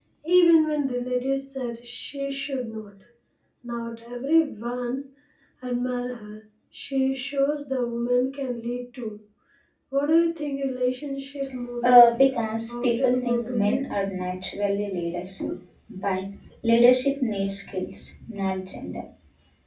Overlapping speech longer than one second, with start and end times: 12.7-13.9

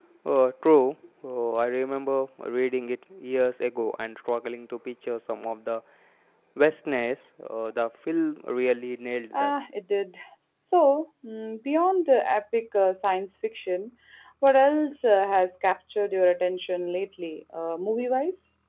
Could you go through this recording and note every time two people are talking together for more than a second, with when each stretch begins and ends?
none

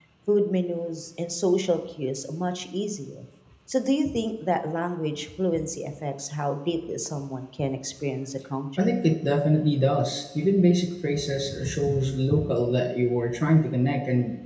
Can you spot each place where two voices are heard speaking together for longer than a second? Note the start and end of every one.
none

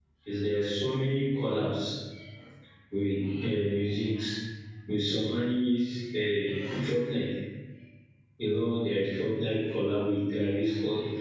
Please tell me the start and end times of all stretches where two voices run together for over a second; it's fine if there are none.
none

